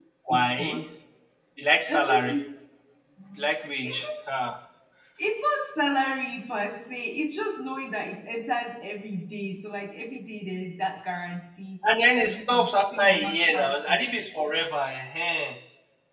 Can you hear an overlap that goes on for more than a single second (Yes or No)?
Yes